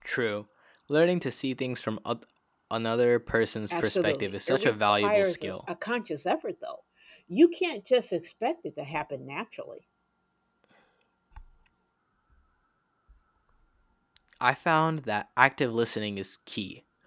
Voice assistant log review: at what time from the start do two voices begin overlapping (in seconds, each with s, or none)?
3.7 s